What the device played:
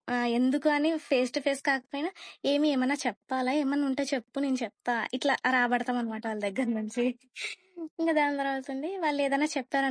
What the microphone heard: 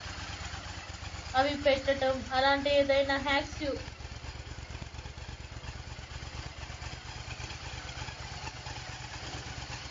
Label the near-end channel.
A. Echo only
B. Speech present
B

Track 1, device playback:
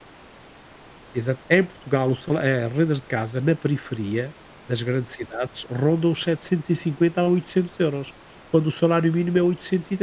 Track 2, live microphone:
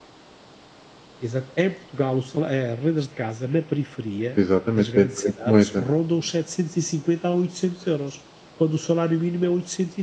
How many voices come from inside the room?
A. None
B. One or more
B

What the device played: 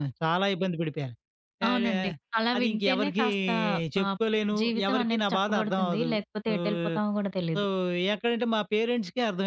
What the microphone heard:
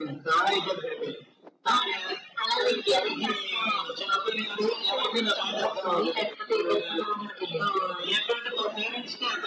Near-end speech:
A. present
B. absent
B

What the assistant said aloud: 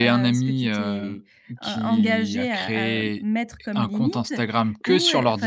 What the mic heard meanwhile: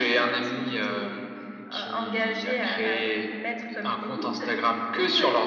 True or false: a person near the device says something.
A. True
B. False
B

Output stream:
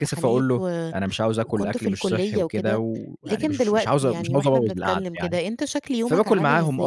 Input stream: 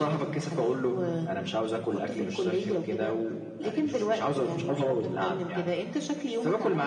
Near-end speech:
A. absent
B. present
A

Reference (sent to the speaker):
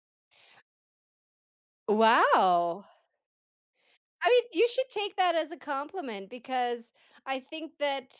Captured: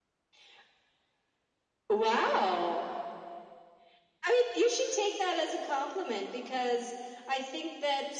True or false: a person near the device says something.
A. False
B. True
A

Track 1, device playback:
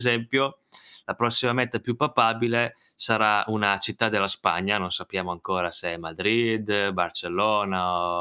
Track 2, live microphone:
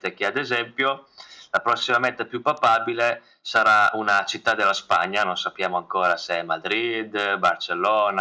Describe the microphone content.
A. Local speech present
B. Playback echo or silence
B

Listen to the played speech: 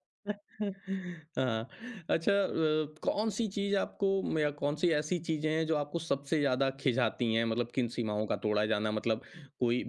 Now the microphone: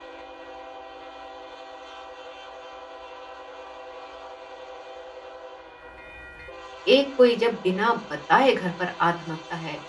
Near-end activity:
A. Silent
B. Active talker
B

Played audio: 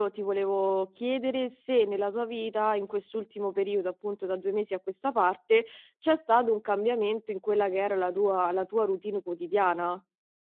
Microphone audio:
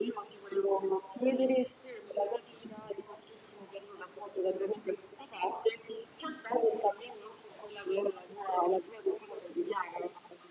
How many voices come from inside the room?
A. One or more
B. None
B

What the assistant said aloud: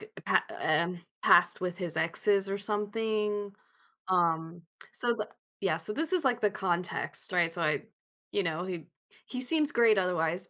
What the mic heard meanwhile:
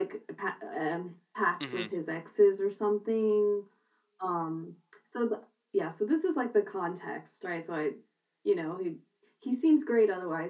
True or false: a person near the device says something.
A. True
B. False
A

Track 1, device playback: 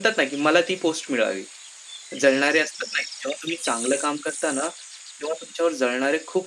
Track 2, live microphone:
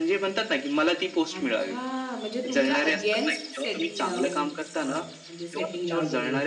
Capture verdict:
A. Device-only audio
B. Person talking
B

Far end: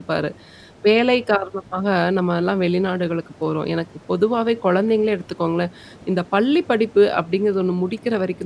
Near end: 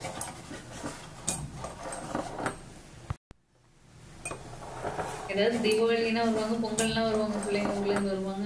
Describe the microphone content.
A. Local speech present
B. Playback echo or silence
A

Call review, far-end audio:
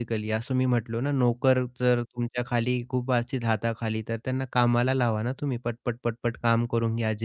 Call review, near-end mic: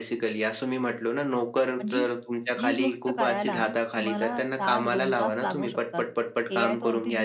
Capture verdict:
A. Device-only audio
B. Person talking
B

